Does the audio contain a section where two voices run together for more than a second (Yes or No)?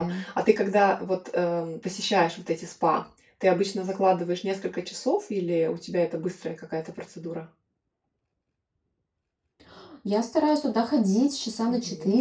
No